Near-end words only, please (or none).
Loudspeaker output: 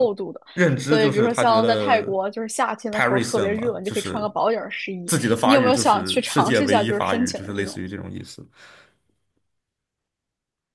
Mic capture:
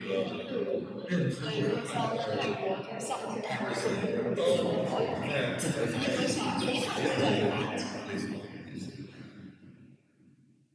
哦，我不是，我是在我是在比利时，我只是去那里旅游。